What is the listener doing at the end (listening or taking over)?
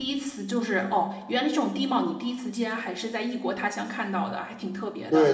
taking over